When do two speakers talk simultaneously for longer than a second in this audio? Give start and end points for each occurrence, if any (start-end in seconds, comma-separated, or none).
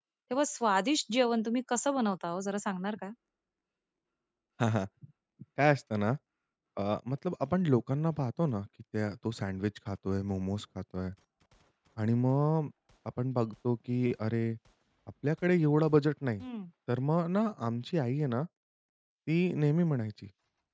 none